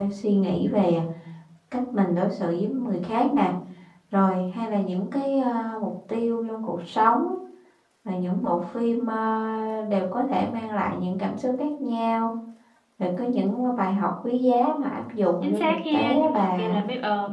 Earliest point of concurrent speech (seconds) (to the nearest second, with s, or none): 15 s